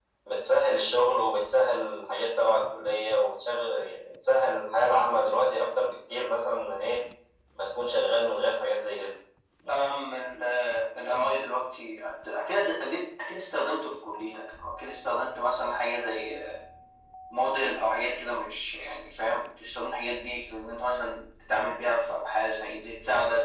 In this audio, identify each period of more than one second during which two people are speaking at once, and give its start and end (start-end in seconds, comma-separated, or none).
none